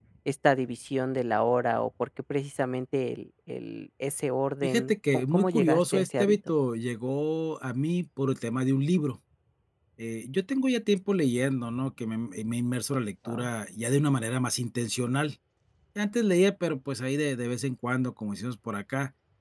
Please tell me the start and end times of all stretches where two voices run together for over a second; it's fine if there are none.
4.6-6.4

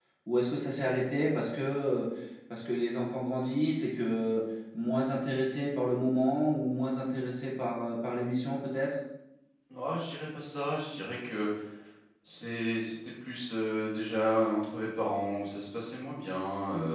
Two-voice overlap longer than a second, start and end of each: none

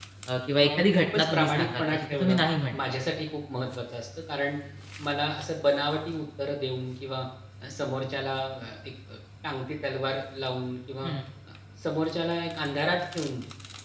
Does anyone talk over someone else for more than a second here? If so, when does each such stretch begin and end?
0.6-2.4

